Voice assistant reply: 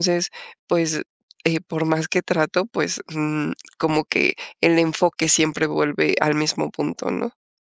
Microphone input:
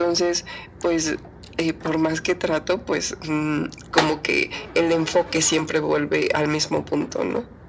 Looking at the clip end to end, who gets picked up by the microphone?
echo only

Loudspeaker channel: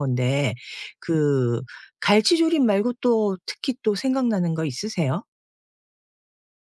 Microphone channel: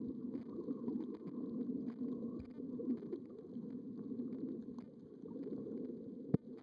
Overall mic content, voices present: neither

